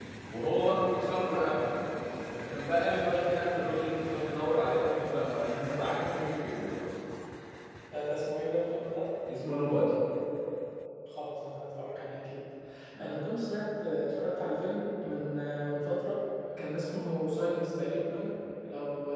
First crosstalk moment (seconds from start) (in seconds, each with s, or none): none